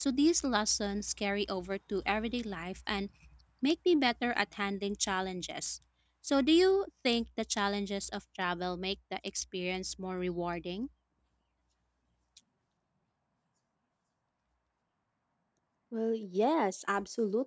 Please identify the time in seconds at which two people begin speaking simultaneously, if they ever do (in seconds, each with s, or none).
none